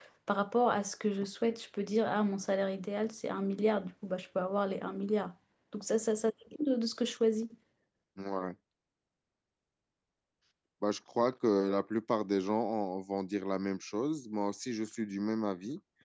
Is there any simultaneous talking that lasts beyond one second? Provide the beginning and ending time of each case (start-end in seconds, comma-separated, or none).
none